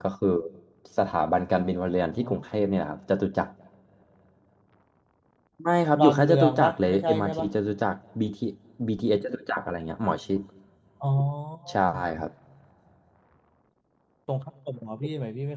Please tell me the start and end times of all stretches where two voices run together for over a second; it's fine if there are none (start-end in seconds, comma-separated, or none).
5.8-7.5